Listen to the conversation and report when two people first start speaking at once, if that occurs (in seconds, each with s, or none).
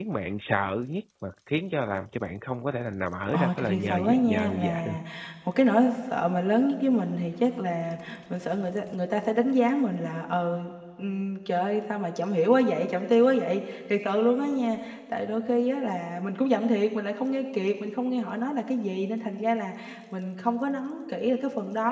3.3 s